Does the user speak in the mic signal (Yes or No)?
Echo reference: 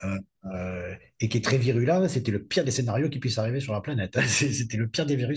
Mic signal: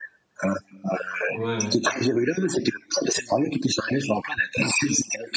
Yes